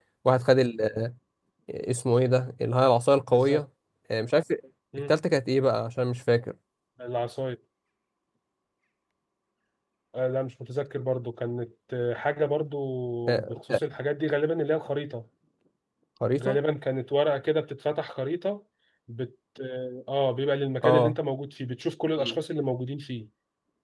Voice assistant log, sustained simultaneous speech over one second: none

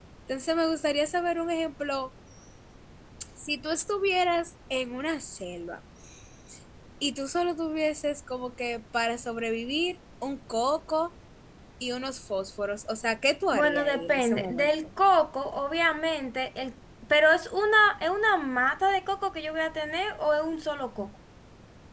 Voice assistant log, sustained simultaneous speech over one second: present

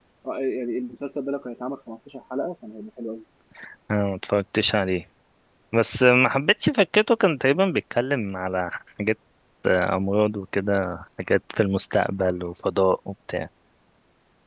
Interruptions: none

